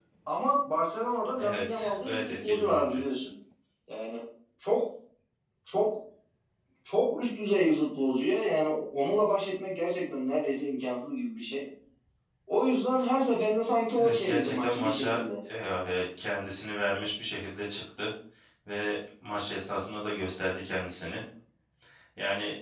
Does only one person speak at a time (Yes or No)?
No